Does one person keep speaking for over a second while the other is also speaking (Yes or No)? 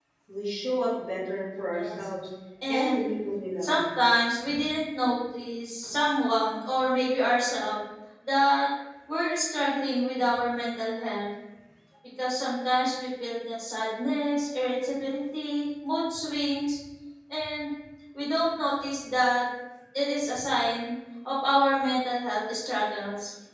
No